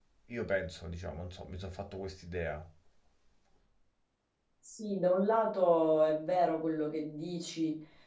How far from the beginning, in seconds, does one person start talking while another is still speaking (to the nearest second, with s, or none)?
none